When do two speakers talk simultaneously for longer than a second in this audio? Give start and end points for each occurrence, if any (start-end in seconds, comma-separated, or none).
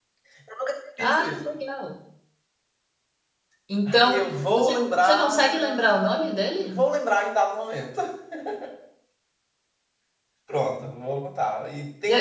3.9-6.8